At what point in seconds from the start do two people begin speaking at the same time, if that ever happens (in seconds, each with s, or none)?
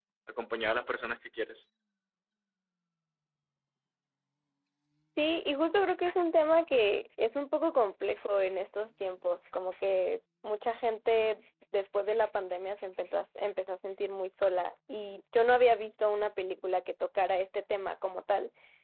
none